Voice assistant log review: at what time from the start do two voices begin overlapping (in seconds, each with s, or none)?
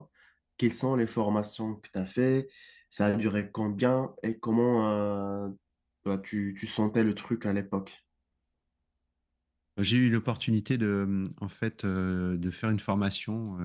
none